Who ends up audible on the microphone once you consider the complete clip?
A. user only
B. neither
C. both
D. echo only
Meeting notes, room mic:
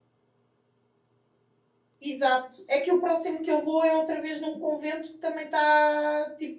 A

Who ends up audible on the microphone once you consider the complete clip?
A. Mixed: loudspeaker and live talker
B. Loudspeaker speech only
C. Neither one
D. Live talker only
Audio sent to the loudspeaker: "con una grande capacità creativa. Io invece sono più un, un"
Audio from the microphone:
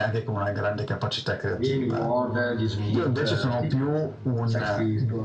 A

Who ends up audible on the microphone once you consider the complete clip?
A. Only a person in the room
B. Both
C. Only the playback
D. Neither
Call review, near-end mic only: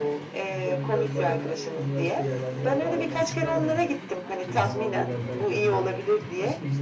B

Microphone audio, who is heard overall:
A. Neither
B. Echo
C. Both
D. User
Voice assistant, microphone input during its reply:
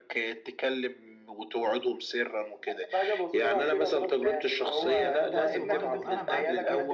C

